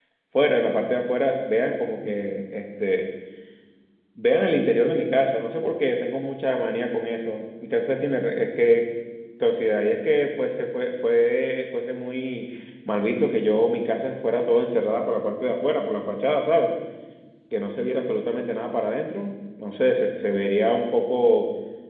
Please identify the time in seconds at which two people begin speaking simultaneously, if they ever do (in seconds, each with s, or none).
none